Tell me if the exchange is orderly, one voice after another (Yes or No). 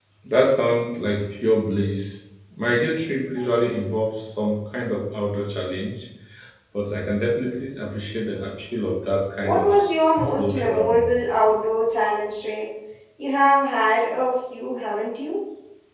No